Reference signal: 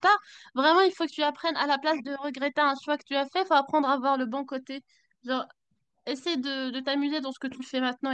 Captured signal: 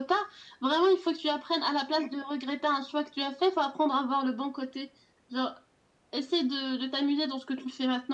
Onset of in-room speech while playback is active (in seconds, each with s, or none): none